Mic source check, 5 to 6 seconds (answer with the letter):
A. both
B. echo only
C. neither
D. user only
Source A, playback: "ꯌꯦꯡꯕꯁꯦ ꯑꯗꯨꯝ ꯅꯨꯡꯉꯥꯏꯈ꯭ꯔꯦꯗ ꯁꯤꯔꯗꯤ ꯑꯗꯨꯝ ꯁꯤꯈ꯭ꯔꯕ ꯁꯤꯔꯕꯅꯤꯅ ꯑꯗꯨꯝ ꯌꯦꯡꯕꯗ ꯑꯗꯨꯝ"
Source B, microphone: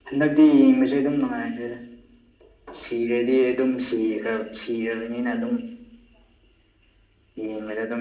B